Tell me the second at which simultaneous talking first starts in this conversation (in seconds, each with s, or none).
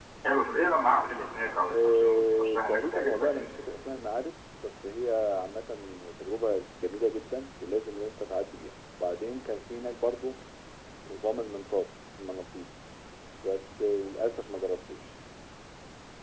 1.7 s